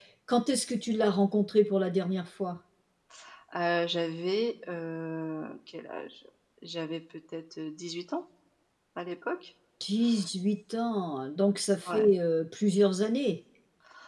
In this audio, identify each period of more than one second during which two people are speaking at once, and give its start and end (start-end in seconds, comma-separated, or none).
none